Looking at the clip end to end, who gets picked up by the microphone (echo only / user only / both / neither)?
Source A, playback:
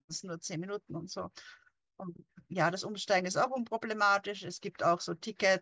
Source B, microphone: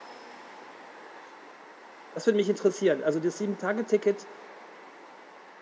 user only